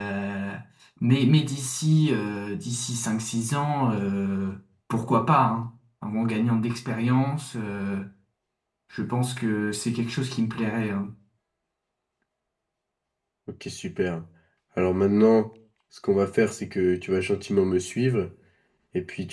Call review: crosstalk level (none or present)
none